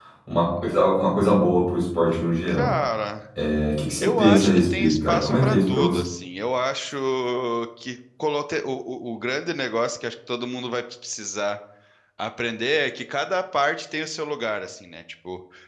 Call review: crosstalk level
present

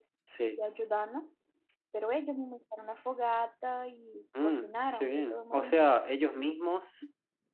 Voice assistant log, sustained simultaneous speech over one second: present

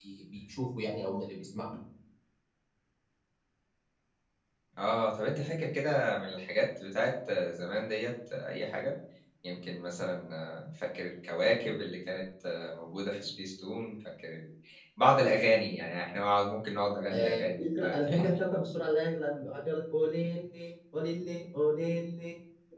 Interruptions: present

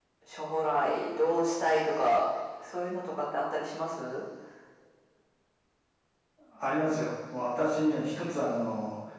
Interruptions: none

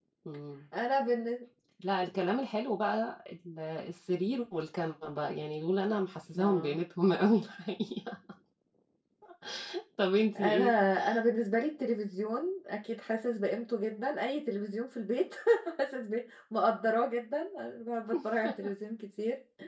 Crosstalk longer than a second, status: none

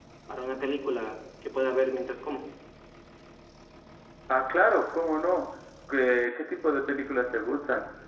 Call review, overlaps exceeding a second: none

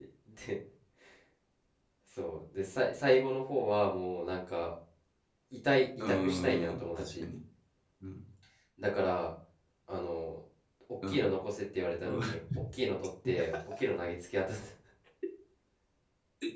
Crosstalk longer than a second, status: present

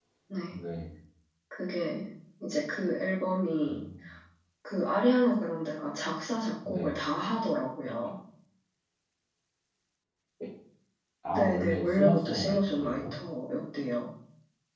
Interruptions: present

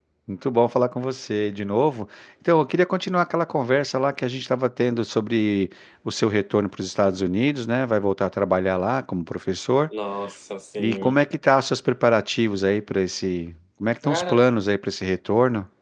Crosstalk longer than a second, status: none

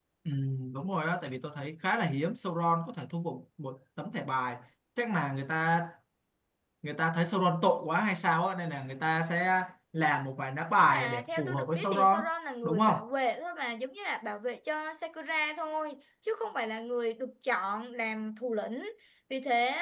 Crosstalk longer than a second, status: present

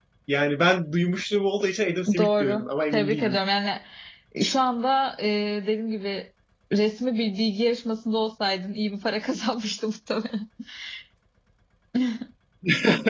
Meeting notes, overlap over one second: present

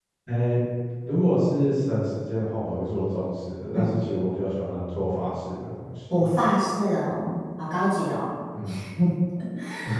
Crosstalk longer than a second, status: none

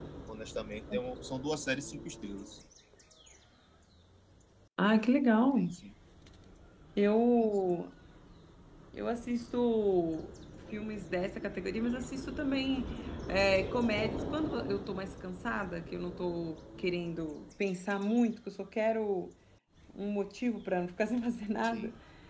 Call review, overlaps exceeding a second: none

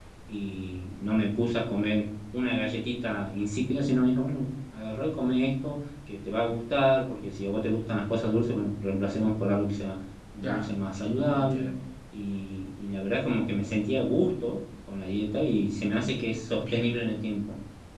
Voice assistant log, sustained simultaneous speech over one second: present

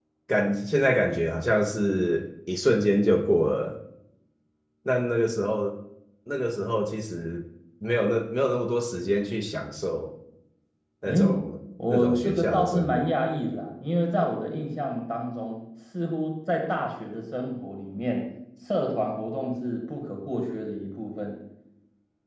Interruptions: present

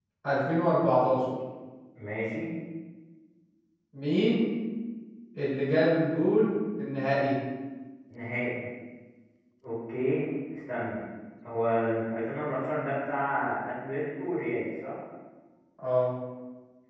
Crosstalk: none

